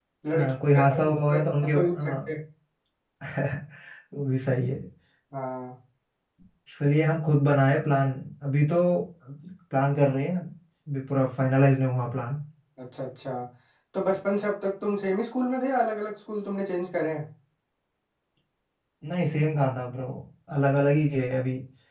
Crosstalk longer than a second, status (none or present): present